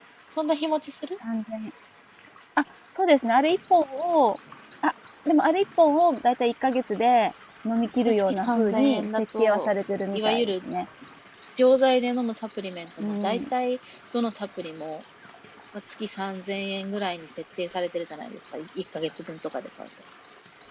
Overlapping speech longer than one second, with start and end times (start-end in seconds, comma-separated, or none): 8.1-9.7